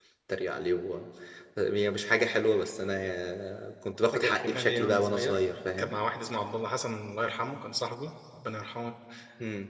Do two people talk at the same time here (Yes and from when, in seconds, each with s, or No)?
Yes, from 4.1 s